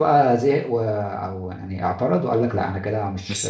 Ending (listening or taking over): taking over